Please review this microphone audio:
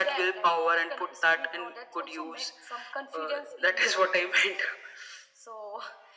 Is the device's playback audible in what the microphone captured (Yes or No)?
Yes